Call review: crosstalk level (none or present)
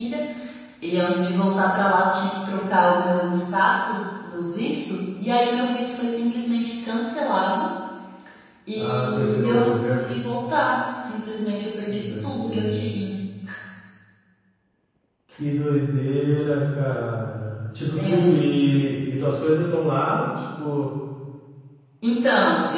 present